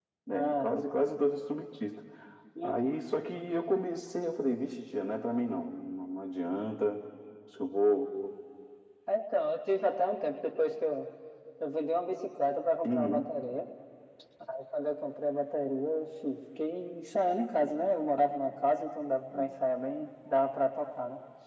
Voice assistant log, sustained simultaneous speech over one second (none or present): none